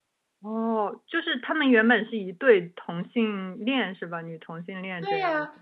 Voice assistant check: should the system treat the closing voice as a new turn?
Yes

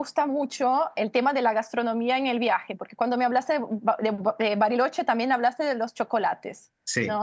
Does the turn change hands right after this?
No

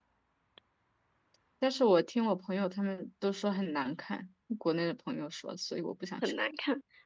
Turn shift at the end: Yes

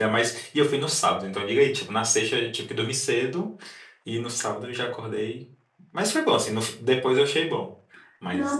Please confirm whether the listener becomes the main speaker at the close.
Yes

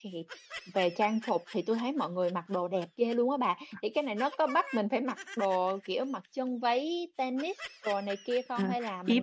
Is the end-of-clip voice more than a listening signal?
Yes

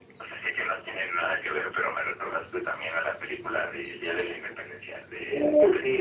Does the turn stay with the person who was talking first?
No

